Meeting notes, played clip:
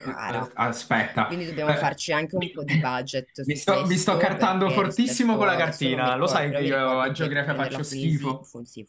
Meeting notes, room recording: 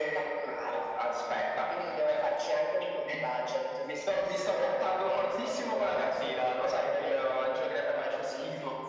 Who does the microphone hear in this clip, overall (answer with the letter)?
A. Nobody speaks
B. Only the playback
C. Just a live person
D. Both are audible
B